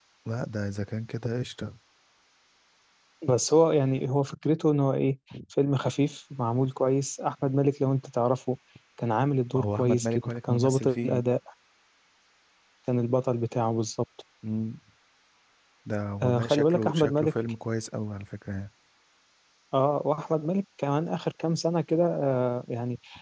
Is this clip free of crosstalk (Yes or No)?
No